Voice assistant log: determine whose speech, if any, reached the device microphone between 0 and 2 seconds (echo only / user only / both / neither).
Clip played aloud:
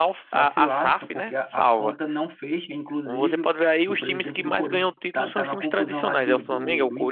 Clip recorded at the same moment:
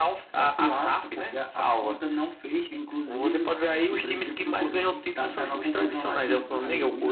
echo only